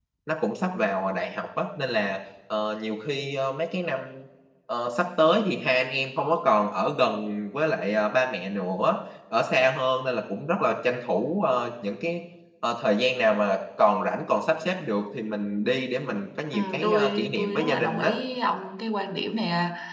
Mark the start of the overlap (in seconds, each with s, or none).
16.5 s